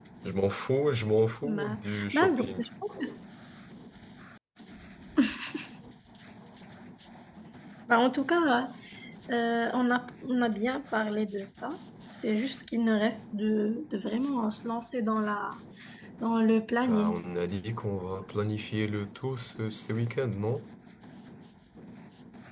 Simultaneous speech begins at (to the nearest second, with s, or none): 1 s